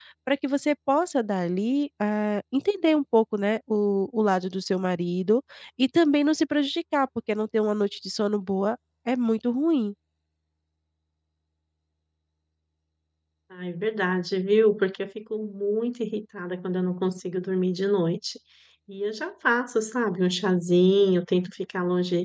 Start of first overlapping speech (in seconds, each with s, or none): none